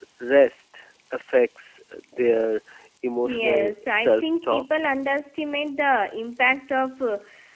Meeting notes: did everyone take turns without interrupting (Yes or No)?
No